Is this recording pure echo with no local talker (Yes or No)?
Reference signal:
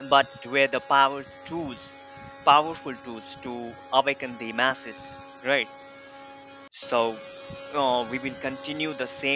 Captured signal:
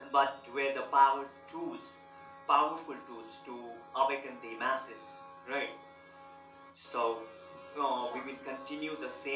No